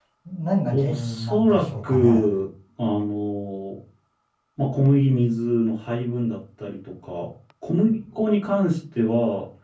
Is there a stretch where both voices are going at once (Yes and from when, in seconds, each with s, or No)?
Yes, from 0.7 s